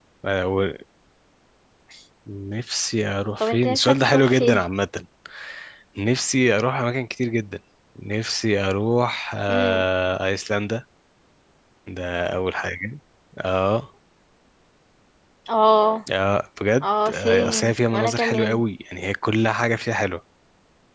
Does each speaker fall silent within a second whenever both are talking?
No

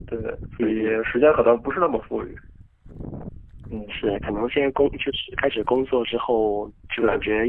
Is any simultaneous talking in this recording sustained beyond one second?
No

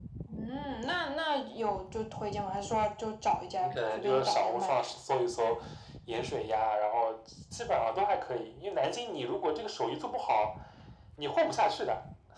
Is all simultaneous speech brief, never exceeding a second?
No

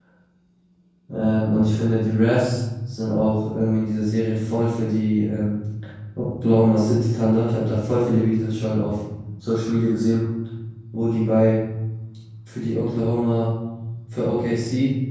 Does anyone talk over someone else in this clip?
No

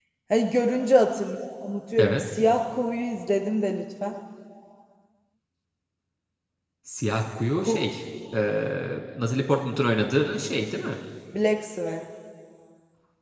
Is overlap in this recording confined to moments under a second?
Yes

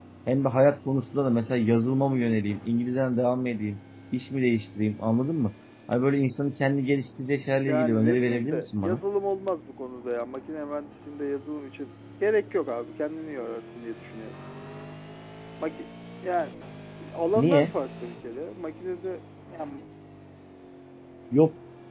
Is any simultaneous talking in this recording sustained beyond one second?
Yes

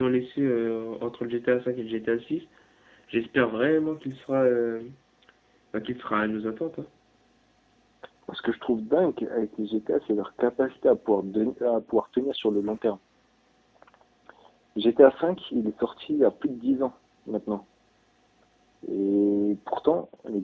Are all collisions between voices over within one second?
Yes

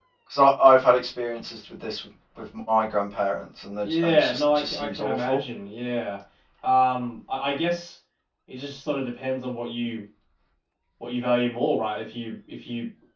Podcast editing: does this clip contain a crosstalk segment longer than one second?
Yes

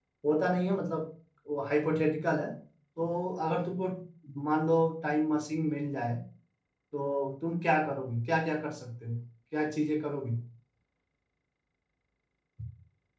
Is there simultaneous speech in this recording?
No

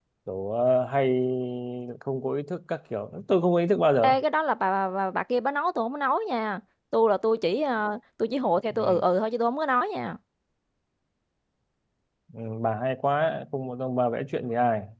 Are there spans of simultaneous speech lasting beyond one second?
No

